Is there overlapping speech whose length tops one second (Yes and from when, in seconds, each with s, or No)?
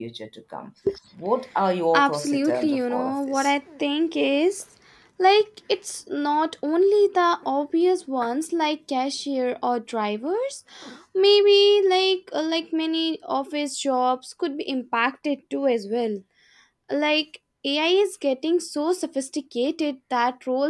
Yes, from 1.9 s